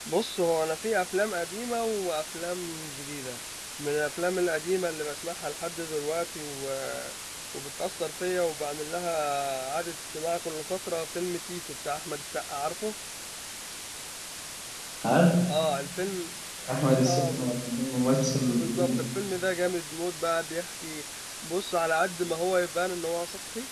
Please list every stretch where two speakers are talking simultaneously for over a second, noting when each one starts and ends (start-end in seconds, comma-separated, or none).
none